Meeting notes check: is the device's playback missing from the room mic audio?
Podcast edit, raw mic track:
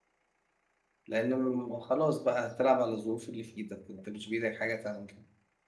Yes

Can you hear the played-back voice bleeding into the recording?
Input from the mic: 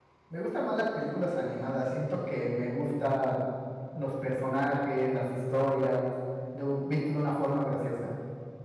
No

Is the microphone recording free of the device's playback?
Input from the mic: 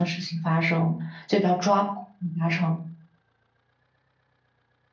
Yes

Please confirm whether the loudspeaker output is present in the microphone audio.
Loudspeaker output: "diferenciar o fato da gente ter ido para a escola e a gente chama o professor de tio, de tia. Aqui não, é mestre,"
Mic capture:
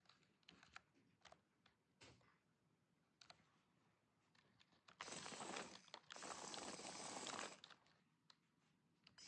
No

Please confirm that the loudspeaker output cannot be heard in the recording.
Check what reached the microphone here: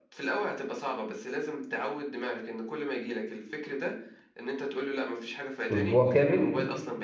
No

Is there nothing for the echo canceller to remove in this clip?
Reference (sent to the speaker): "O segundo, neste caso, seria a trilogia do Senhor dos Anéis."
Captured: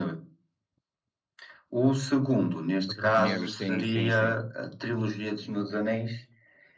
No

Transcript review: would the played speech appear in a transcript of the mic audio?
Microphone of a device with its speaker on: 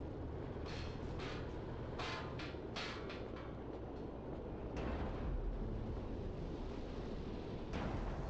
No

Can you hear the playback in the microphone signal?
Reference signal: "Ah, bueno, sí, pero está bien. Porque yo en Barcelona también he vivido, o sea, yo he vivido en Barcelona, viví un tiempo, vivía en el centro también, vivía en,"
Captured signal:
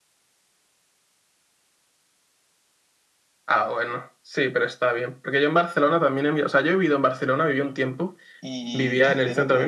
Yes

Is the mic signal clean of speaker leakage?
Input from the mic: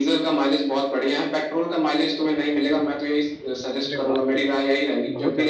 No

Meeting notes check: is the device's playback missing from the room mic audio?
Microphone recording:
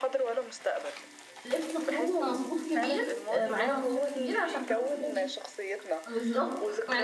No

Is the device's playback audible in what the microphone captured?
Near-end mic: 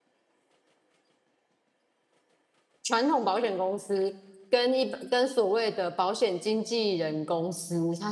No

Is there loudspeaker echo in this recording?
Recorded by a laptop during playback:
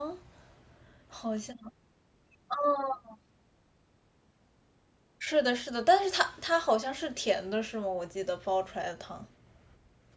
No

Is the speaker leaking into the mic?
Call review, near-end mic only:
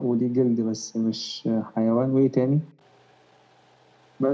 Yes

